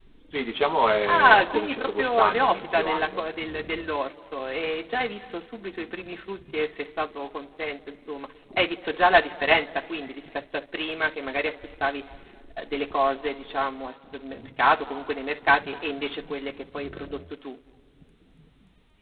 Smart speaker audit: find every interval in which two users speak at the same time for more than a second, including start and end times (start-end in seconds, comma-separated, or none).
1.1-3.3